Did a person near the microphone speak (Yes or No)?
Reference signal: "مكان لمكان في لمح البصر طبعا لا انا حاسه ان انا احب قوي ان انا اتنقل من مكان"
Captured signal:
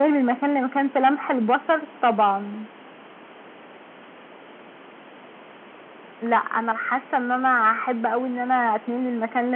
No